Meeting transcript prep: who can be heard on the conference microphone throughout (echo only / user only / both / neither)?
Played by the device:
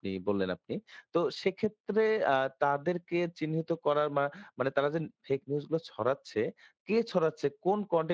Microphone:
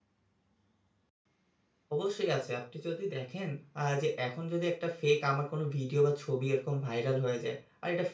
user only